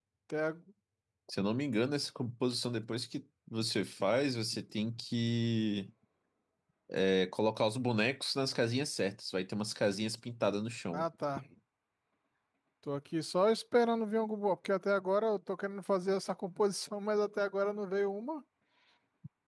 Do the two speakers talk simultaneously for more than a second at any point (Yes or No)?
No